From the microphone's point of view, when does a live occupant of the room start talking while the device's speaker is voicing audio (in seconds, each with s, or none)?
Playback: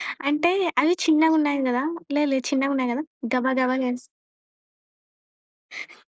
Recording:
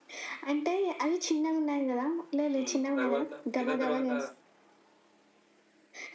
2.5 s